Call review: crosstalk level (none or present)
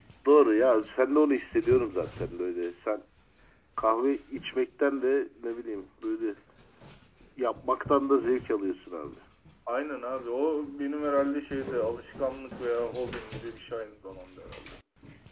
none